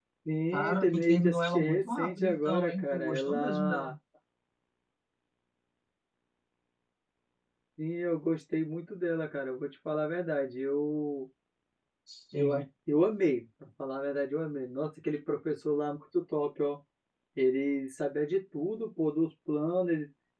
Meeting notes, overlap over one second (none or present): present